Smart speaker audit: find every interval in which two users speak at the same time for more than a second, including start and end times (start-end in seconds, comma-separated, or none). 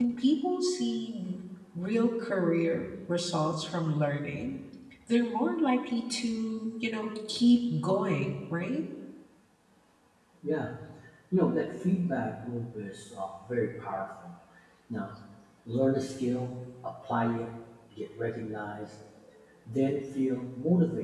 none